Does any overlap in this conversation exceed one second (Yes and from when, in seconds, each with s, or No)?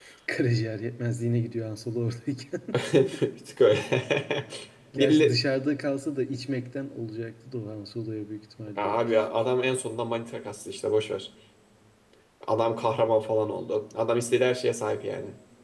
No